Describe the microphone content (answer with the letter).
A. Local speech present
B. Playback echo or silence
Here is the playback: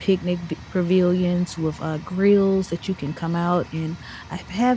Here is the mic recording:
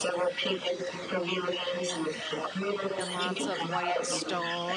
A